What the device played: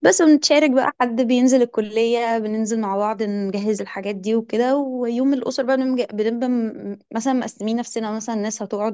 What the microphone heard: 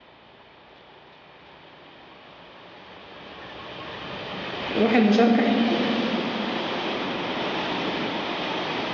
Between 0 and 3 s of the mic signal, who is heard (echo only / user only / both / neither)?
neither